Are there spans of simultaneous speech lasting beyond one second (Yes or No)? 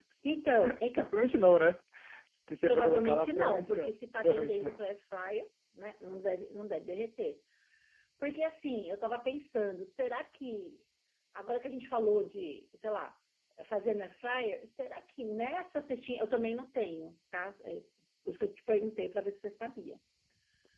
Yes